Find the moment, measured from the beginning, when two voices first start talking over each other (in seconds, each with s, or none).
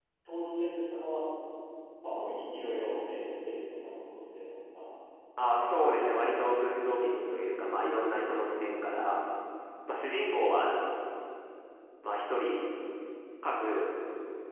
none